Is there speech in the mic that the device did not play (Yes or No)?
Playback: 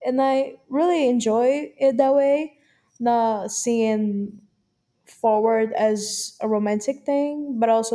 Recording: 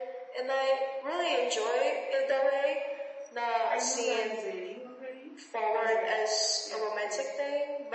Yes